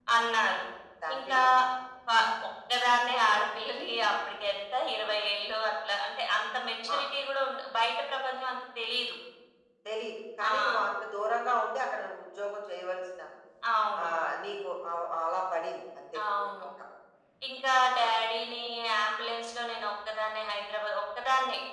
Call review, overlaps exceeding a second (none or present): none